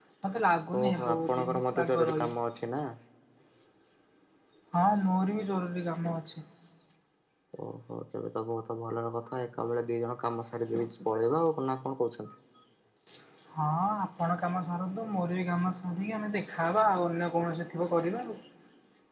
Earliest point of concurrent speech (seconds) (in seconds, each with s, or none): 0.8 s